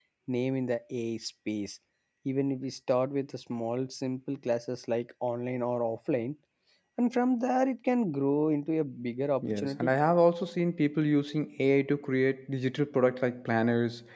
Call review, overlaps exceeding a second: none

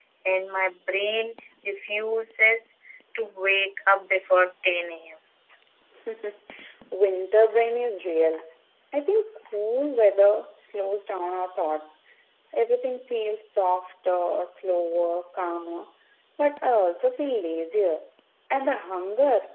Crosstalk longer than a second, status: none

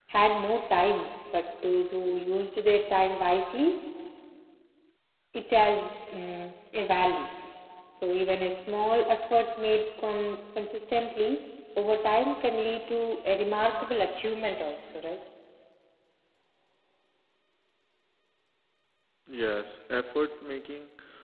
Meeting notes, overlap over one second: none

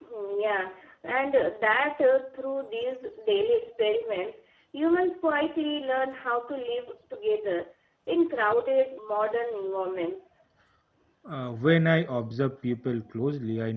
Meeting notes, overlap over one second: none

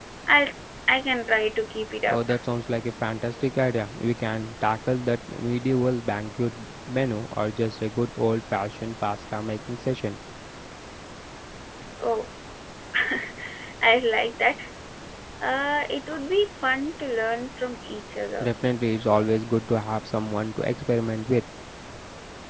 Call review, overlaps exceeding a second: none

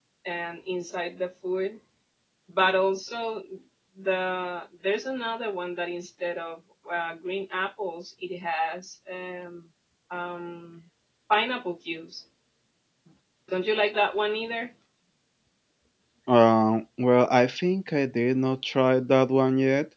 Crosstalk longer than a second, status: none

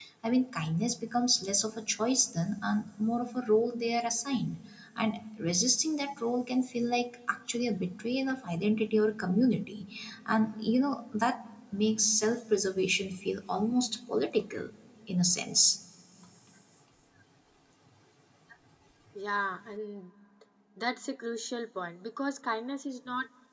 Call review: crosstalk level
none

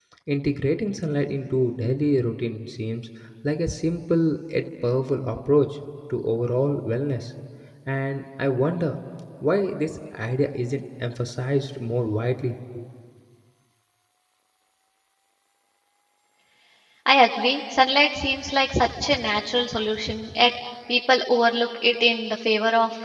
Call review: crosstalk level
none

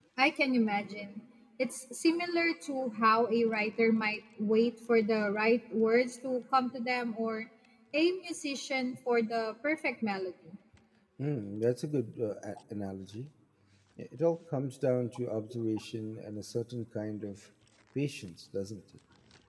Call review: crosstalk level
none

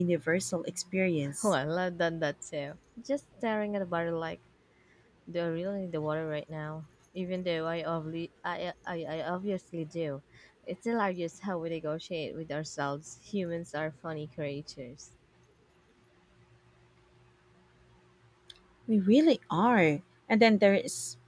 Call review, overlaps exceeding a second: none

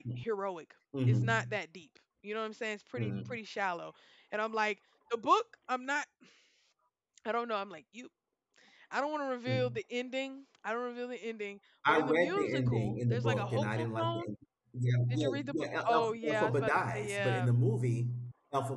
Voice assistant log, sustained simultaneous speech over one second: present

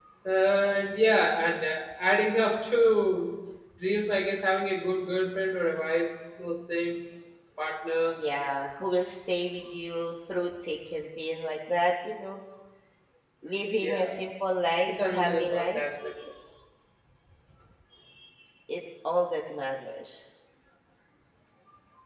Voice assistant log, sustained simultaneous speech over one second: present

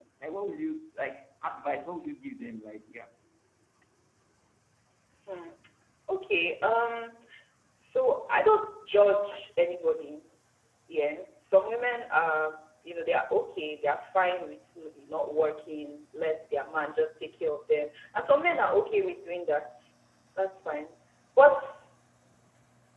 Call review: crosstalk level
none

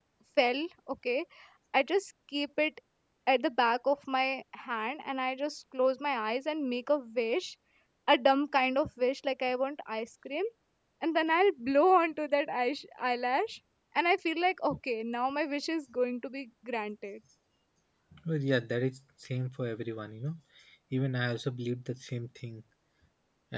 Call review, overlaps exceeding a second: none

